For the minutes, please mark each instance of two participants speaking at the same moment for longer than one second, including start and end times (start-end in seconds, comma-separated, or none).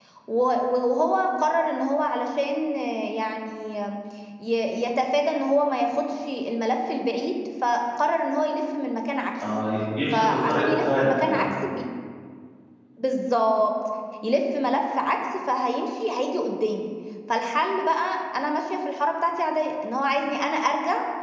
10.1-11.4